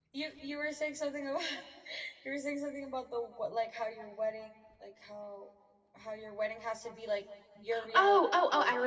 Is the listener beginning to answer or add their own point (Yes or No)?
Yes